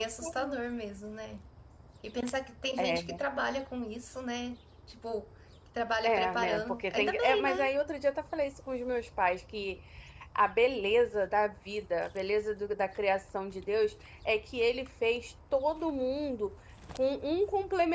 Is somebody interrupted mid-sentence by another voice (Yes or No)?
Yes